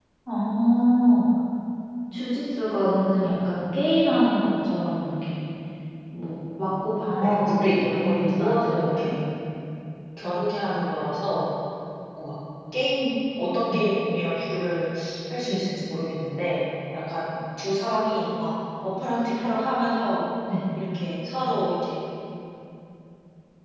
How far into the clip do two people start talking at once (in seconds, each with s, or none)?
7.2 s